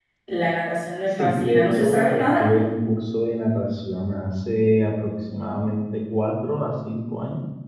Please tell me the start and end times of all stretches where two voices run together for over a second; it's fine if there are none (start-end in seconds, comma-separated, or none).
1.2-2.5